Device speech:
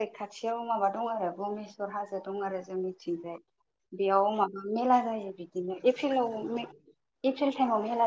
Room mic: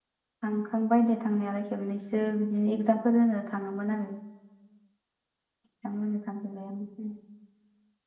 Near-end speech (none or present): present